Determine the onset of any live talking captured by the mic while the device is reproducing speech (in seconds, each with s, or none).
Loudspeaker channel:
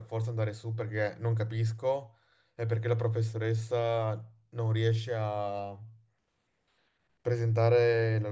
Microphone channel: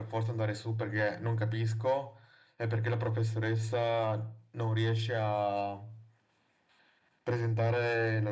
none